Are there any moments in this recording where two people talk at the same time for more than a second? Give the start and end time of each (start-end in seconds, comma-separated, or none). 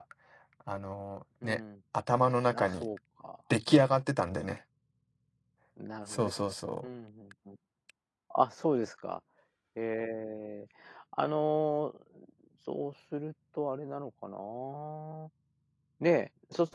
none